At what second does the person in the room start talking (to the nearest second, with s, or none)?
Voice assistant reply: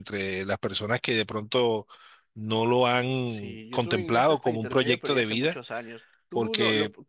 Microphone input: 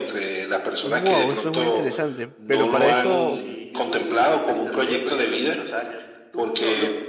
1 s